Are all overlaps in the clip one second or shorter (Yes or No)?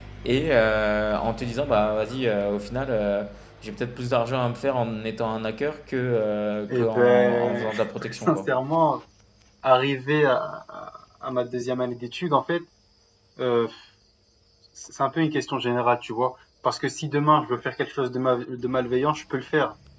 No